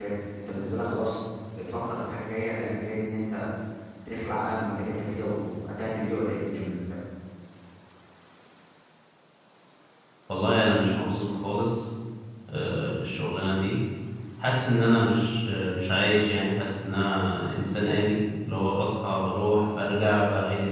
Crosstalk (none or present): none